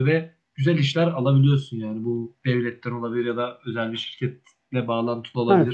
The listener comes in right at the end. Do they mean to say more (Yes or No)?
Yes